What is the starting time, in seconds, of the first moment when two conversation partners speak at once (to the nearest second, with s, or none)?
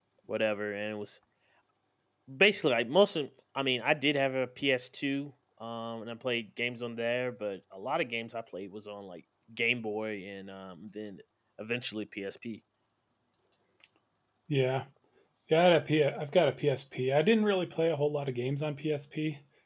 none